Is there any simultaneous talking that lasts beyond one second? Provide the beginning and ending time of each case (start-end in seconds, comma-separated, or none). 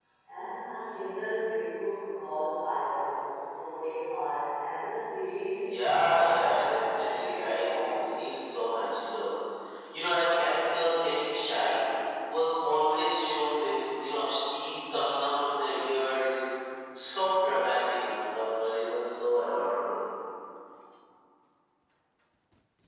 5.6-8.3